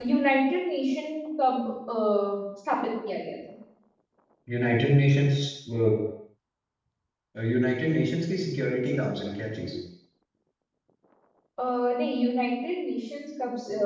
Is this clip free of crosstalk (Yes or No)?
Yes